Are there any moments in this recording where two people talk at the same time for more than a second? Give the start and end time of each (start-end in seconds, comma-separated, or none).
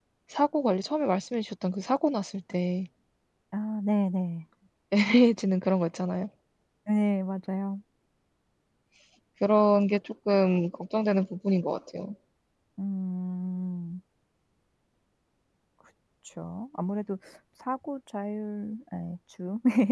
none